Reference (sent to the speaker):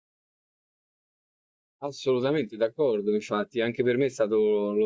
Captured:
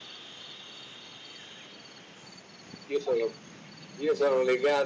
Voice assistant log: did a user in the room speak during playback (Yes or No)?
Yes